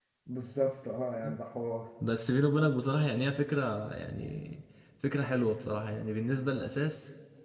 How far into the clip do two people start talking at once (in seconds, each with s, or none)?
none